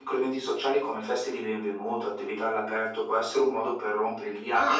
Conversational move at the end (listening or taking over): taking over